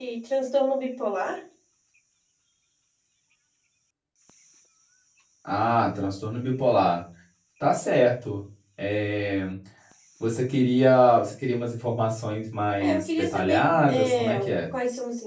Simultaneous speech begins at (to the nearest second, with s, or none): 13 s